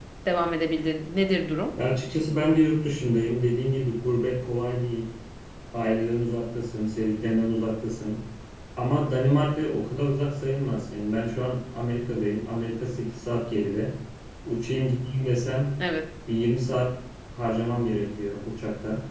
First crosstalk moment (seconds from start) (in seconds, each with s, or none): none